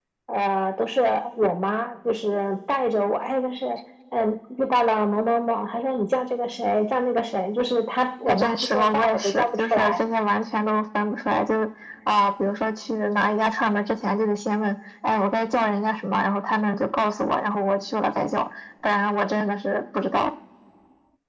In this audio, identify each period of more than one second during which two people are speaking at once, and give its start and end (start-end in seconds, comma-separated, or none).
8.3-10.0